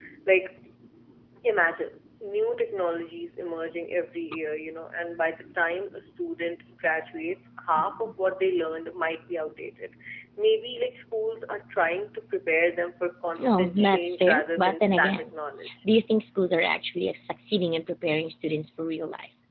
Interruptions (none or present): present